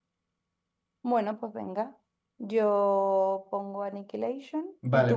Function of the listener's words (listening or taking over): taking over